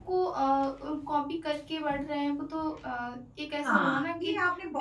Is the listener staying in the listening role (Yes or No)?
No